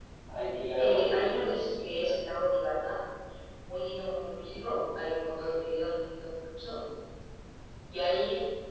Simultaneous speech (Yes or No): Yes